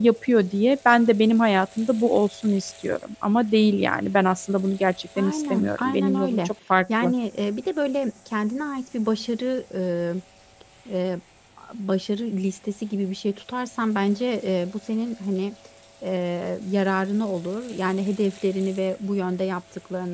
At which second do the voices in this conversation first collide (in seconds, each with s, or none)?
5.2 s